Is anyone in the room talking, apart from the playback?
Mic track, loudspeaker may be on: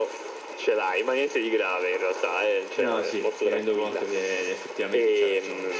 Yes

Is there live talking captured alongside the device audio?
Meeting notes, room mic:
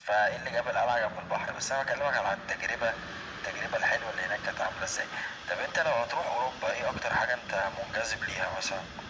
No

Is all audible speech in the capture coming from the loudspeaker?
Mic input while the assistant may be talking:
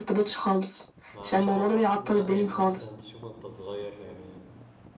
No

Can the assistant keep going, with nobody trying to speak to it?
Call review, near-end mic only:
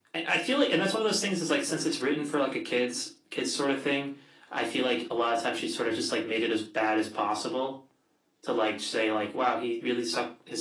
Yes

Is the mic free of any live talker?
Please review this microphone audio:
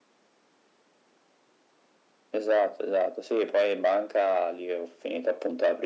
Yes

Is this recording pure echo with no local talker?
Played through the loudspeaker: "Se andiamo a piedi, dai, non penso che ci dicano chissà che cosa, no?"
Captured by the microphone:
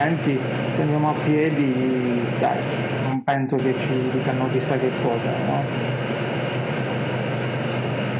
Yes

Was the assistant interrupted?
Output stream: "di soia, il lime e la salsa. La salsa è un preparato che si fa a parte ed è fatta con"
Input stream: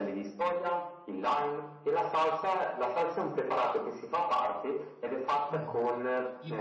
Yes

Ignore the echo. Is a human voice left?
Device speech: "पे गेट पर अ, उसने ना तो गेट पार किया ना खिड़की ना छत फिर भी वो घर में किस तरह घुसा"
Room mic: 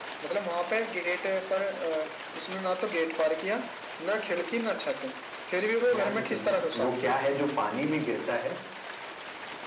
Yes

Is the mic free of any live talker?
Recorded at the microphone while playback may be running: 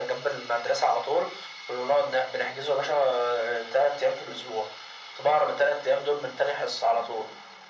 Yes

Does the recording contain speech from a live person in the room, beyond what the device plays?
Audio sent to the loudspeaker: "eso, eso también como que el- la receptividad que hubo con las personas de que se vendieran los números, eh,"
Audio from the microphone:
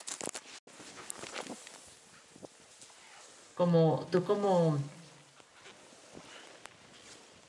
Yes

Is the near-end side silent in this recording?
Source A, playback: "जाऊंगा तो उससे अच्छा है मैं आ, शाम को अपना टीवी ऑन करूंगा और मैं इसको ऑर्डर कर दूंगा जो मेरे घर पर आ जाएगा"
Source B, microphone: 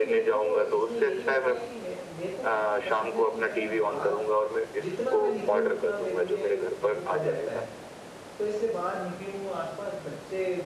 No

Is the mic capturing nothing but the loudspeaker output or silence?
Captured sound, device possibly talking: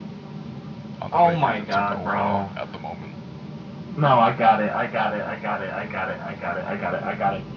No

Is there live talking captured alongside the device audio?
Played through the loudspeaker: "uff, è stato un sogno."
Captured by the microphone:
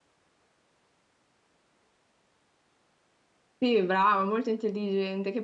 Yes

